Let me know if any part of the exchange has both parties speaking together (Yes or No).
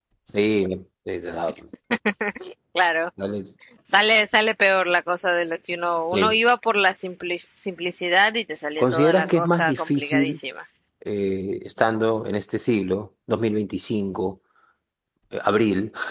Yes